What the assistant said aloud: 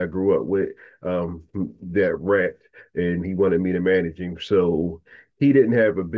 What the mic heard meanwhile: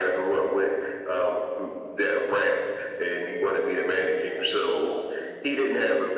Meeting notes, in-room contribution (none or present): none